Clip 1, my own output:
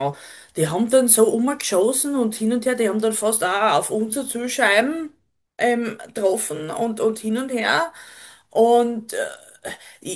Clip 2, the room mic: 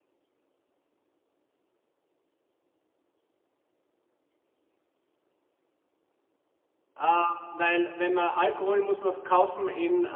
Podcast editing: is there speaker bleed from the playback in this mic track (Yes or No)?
No